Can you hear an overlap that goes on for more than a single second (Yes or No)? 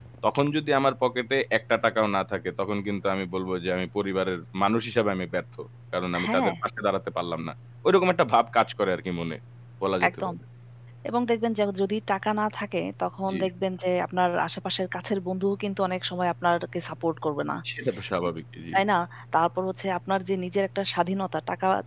No